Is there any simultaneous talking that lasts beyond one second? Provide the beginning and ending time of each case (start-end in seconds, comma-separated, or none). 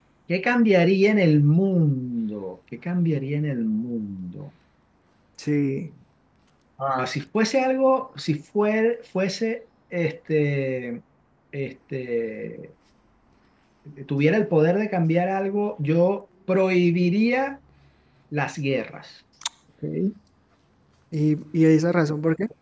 none